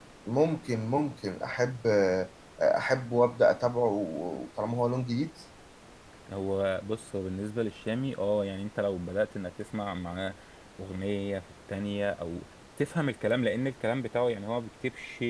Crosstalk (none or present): none